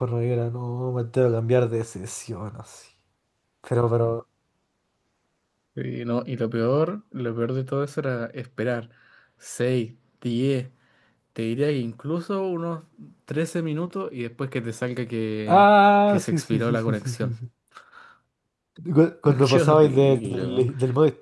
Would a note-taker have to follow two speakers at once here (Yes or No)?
Yes